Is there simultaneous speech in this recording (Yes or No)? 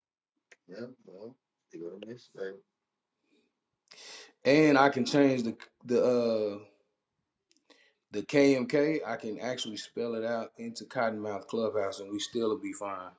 No